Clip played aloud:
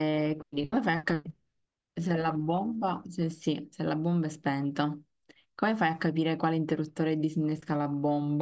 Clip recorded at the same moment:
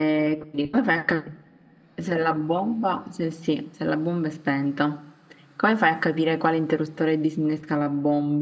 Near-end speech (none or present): none